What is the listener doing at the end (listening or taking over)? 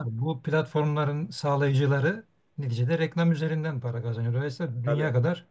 listening